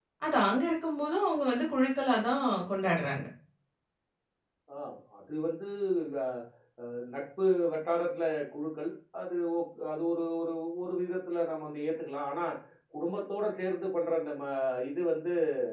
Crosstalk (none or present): none